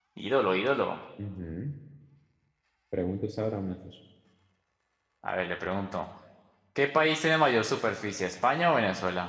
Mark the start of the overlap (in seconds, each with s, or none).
none